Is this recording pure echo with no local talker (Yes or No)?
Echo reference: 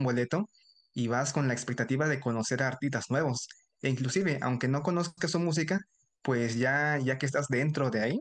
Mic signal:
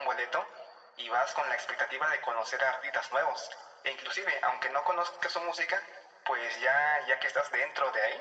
Yes